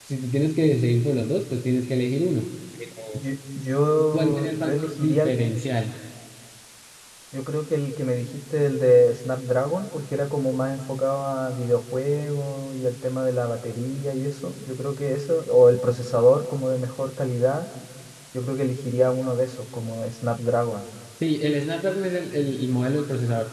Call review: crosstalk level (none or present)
present